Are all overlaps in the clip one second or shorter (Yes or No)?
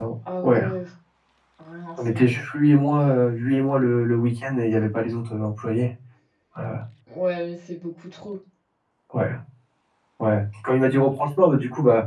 Yes